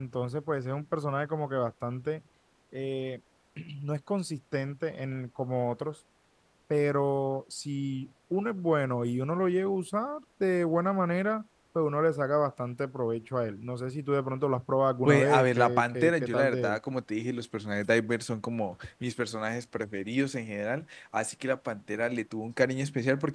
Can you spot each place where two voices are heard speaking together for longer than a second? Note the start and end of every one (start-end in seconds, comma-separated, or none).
15.0-16.8